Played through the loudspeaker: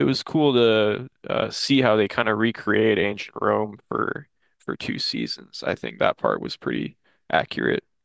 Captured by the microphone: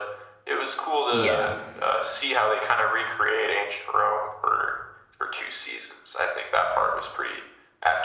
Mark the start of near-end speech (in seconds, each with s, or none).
1.1 s